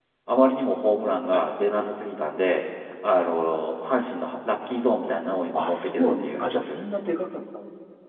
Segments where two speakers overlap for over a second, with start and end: 5.5-6.8

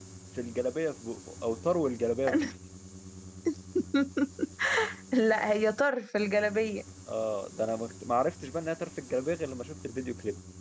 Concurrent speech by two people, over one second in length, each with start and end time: none

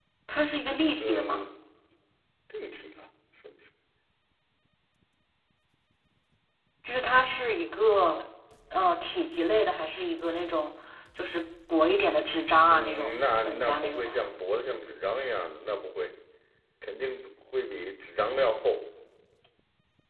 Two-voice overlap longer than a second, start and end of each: 12.7-14.0

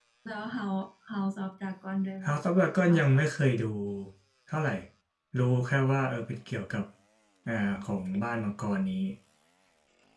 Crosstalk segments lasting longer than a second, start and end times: none

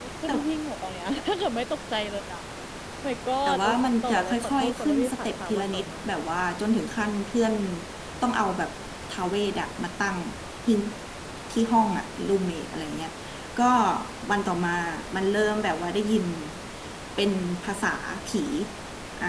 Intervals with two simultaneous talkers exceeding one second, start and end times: 3.5-5.9

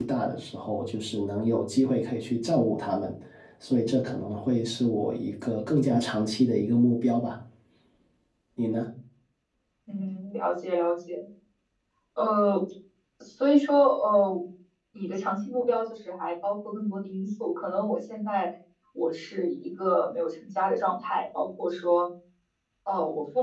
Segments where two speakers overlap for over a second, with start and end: none

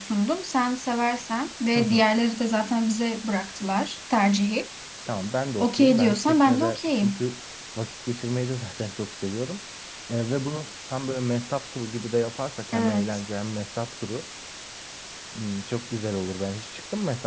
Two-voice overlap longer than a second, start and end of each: 5.6-7.2

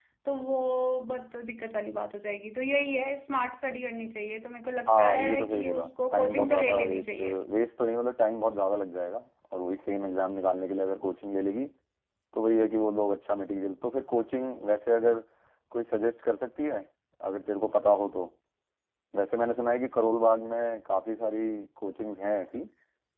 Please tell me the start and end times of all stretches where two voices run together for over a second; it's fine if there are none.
4.9-7.3

